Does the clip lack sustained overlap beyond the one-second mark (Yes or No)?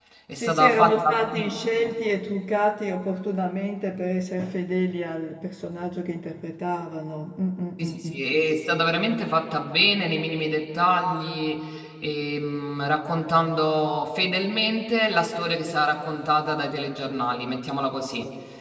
No